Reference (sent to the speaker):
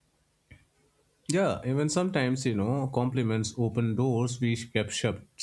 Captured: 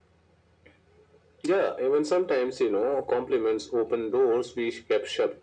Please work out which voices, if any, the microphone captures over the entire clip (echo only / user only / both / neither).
echo only